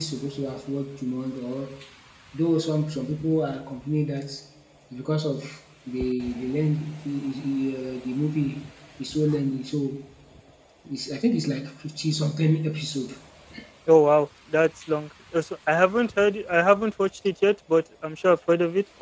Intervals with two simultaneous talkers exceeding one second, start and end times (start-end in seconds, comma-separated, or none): none